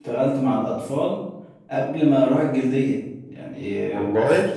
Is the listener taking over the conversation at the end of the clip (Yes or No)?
No